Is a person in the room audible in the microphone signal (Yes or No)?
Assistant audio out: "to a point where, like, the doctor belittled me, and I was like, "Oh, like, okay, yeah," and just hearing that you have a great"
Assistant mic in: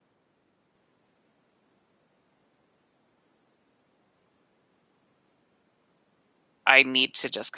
Yes